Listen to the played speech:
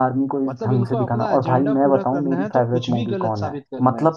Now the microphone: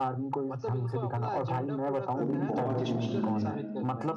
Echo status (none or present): present